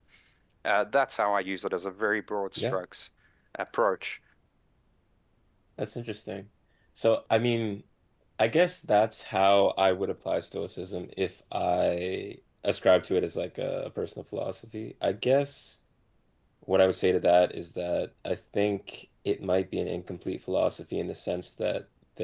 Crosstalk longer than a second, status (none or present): none